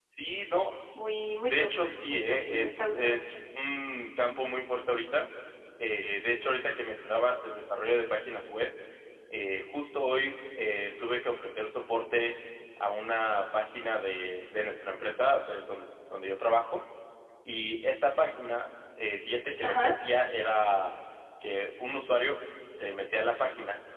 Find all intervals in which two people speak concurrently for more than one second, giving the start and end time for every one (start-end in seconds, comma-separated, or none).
1.4-3.3